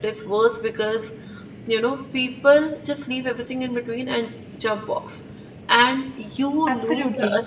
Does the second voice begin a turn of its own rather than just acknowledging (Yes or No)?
No